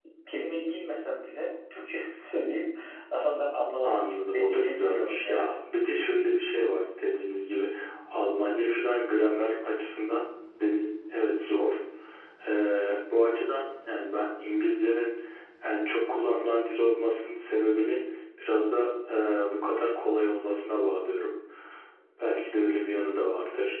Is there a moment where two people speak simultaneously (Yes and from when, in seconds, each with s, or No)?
Yes, from 3.8 s